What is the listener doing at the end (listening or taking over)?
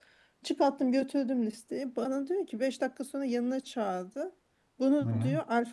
listening